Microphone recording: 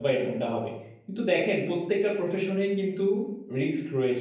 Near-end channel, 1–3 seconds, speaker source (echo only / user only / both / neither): user only